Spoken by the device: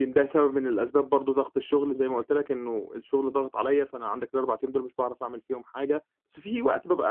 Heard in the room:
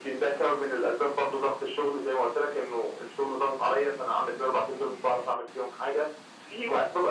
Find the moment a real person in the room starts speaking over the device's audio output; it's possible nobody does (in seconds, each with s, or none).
none